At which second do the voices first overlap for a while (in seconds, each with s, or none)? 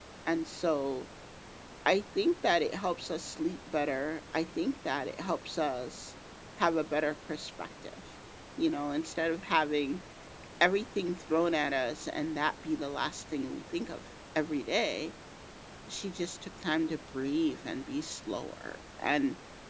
none